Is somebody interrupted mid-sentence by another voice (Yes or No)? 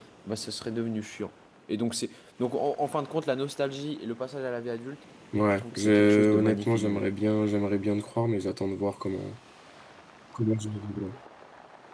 Yes